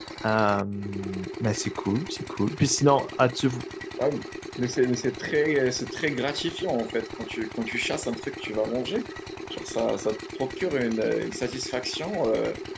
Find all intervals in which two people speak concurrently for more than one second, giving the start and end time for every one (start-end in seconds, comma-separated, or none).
none